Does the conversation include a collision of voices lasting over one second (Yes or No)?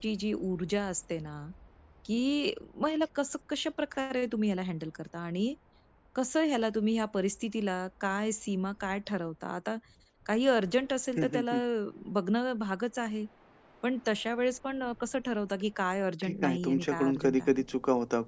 Yes